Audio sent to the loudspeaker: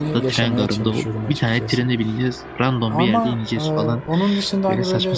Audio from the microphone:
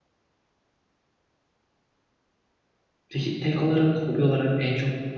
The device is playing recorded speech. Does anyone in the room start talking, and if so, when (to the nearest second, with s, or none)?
3 s